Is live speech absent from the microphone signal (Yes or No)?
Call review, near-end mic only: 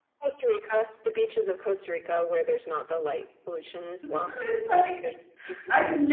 No